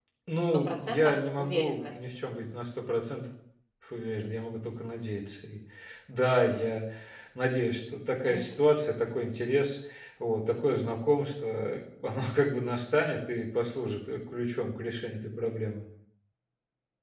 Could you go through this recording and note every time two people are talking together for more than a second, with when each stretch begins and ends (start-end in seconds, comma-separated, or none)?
0.5-1.9